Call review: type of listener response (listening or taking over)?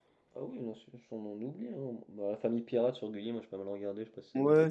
taking over